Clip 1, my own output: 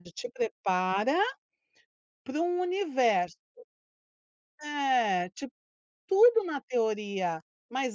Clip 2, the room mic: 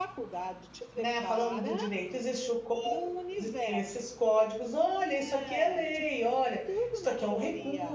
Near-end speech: present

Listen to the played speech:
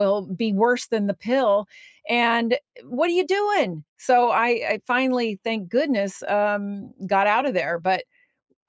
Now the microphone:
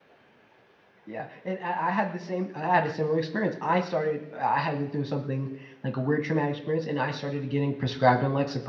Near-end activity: present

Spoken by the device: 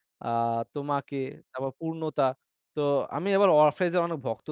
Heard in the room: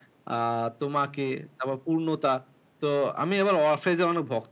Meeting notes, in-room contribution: none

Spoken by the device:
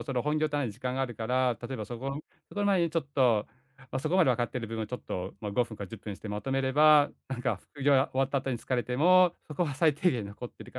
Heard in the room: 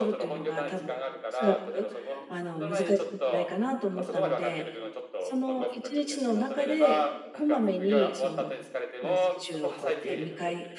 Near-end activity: present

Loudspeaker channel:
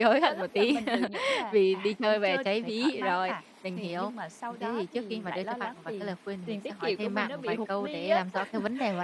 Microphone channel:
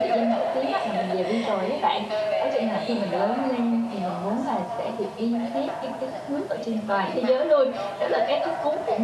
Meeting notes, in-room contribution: present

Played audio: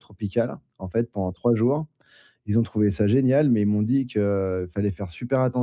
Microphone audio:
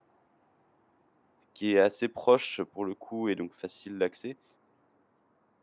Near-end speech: present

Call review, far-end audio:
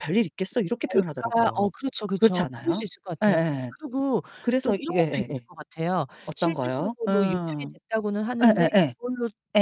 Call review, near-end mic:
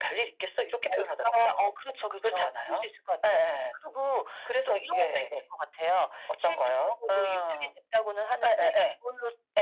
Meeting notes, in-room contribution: none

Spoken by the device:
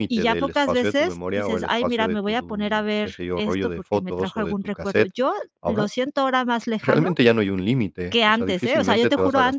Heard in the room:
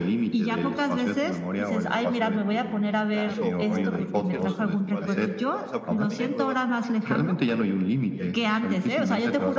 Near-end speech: present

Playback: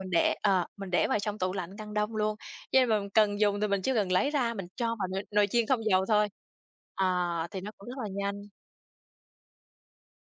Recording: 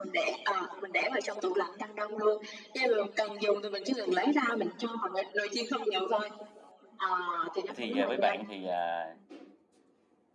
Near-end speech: present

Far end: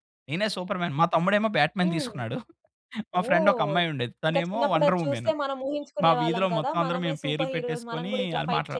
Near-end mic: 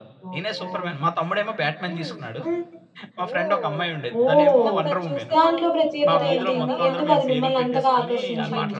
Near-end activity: present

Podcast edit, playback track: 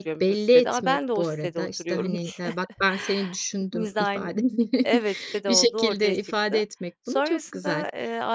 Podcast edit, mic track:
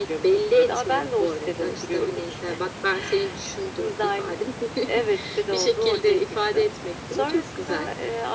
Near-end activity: none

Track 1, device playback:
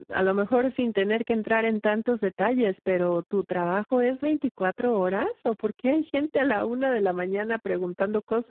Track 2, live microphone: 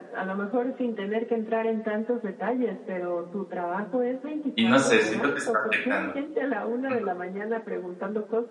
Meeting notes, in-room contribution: present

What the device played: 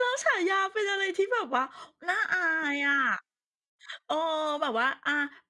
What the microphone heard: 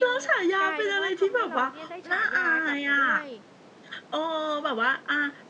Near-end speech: present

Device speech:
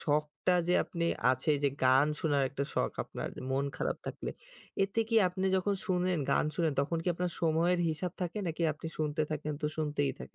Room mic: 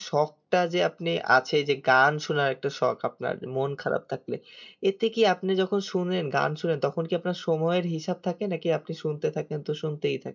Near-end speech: none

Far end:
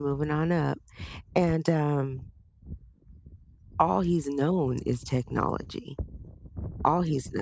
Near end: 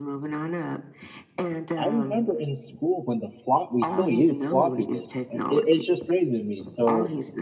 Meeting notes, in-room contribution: present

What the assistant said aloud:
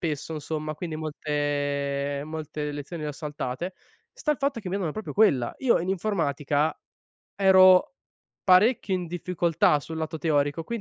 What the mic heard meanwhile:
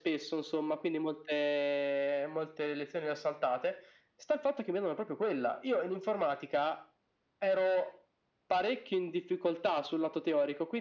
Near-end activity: none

